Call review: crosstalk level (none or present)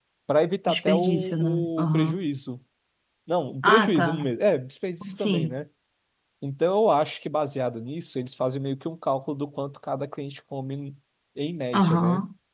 present